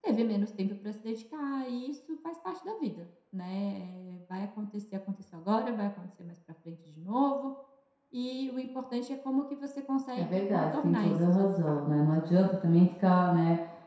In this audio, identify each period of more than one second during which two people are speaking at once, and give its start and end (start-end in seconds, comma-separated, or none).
10.2-12.4